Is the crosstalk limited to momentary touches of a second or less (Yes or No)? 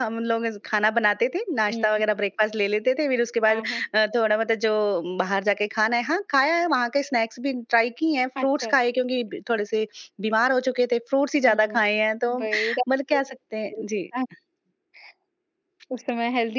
Yes